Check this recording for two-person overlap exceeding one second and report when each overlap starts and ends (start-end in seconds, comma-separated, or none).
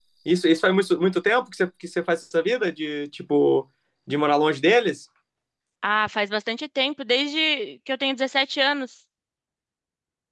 none